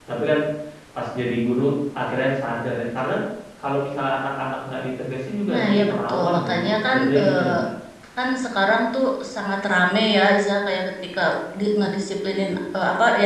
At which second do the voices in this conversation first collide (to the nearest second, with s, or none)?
5 s